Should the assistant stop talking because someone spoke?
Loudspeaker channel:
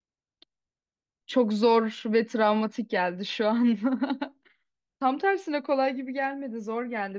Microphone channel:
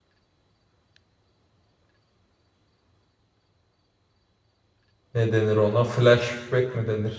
Yes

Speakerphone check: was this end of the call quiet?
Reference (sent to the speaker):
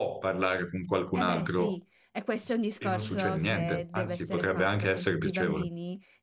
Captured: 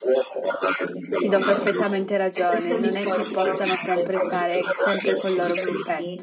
No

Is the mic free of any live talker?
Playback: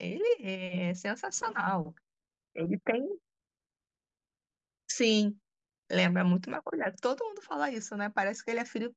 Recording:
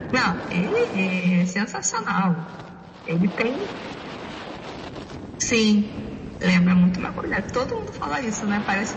Yes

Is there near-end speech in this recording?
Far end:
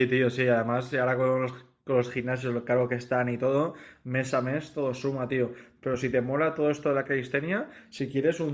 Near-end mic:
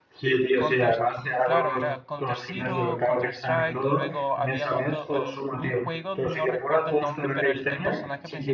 Yes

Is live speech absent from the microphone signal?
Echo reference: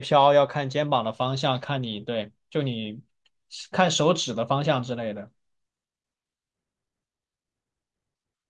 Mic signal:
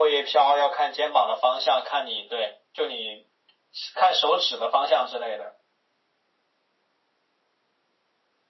Yes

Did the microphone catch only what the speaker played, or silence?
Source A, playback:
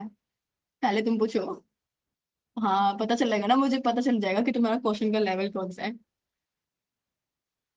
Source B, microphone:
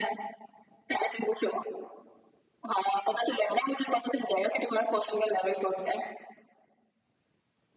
Yes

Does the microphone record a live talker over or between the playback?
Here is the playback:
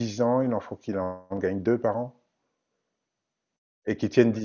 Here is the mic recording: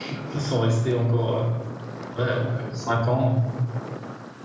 Yes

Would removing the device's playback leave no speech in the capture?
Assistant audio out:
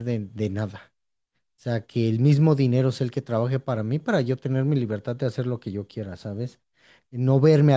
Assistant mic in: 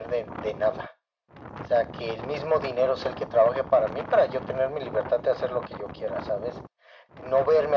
Yes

